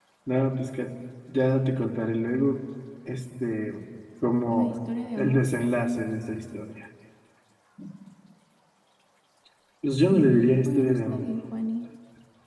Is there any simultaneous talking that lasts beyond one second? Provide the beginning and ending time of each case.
10.0-11.3

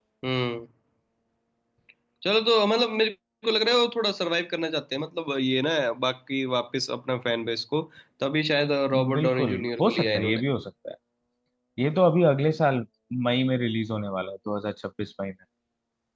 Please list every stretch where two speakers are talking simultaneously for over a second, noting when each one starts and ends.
9.2-10.4

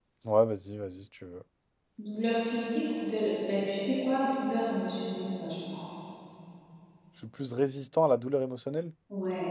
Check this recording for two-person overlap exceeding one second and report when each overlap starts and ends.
none

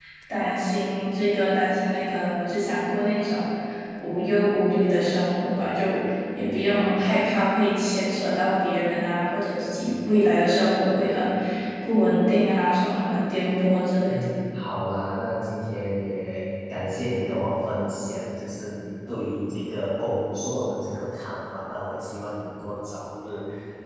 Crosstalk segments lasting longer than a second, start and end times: none

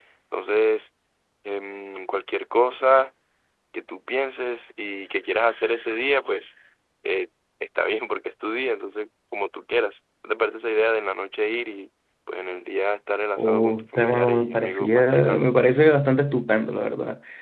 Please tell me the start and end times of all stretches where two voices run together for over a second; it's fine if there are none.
13.4-15.5

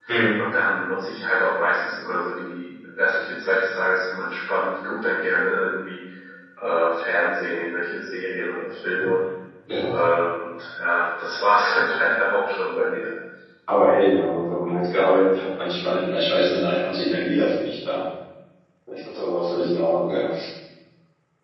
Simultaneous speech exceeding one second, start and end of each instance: none

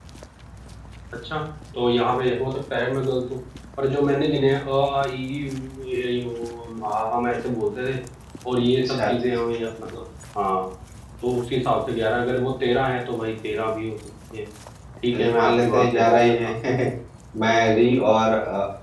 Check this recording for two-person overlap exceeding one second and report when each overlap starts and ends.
15.1-16.5

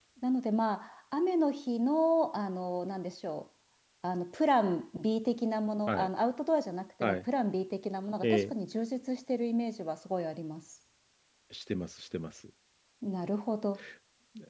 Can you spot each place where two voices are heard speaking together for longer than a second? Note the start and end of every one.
none

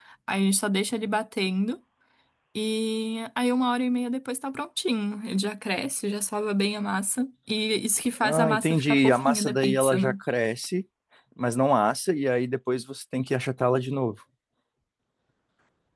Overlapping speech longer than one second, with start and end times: 8.2-10.1

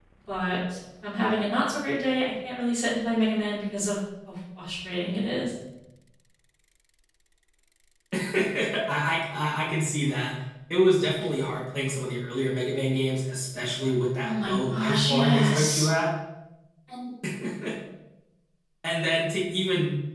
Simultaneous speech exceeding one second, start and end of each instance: 14.2-15.9

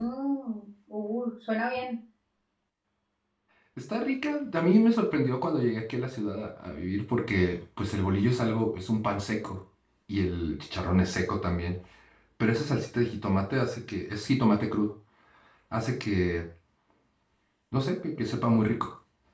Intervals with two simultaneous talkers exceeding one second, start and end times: none

